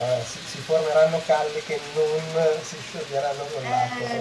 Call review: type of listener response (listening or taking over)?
taking over